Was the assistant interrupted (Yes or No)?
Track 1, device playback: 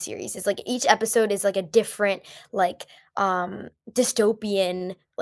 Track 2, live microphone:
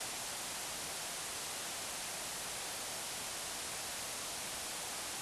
No